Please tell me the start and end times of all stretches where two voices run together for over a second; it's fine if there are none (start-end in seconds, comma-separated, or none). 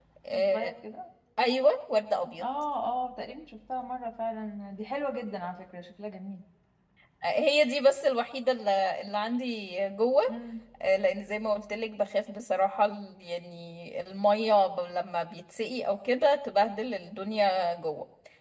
none